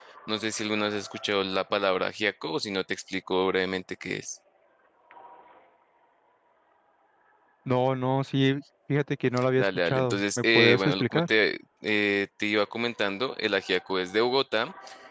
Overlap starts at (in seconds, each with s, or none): 9.4 s